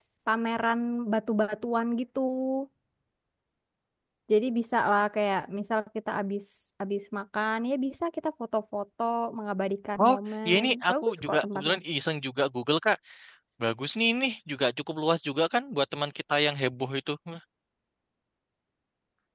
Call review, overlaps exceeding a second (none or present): present